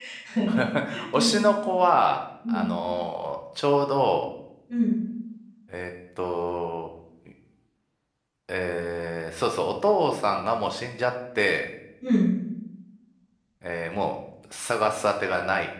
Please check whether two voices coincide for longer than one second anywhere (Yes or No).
No